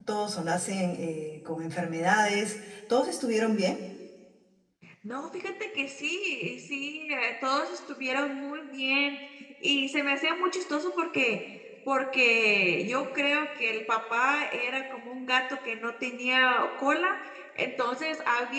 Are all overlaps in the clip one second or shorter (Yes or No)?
Yes